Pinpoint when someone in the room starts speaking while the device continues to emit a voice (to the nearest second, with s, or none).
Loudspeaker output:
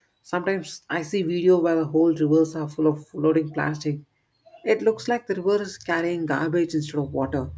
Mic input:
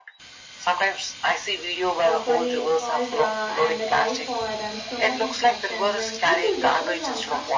2 s